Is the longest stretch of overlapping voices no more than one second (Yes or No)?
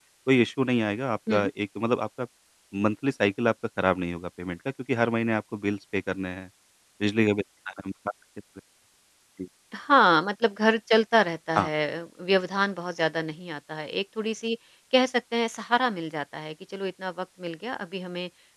Yes